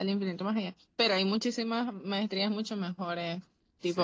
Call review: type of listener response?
taking over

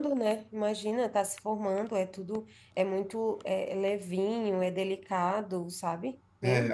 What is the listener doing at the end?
taking over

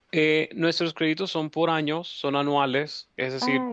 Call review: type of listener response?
listening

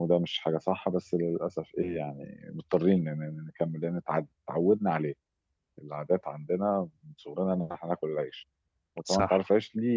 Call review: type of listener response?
listening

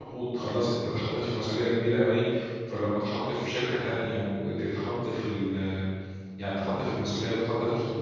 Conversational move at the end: listening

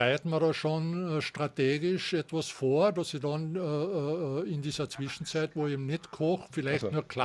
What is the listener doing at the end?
listening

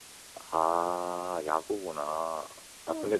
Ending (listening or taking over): listening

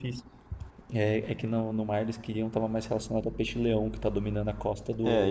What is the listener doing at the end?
taking over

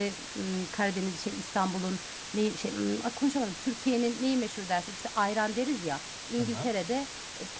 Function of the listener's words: listening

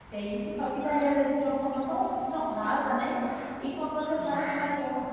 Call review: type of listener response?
listening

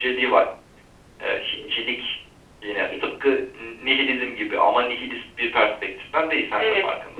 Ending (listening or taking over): taking over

